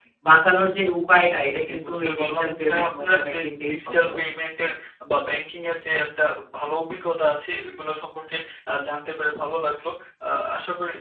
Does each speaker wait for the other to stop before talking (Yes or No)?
No